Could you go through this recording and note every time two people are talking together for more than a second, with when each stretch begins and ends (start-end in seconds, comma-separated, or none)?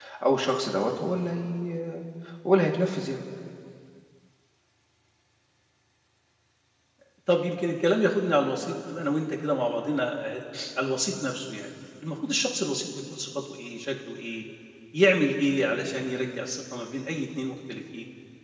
none